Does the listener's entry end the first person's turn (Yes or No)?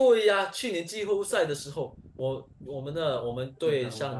No